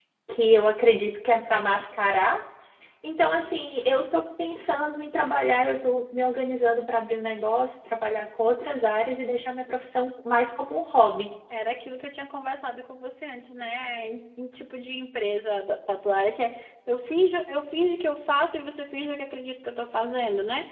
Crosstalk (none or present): none